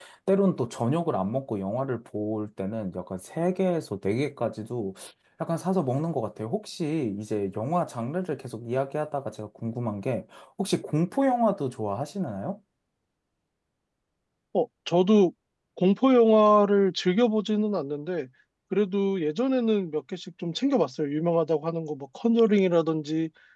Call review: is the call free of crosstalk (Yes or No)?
Yes